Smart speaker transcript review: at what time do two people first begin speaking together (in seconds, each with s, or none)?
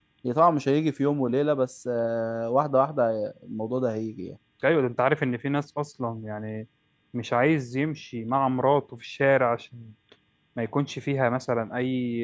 none